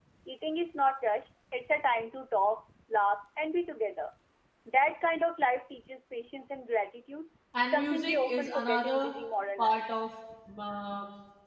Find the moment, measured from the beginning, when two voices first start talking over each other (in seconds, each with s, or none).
7.7 s